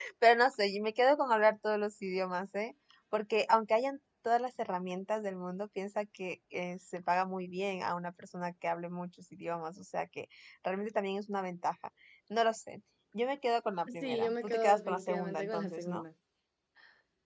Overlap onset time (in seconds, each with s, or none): 13.9 s